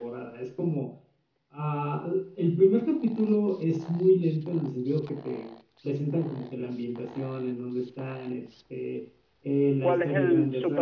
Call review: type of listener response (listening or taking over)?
taking over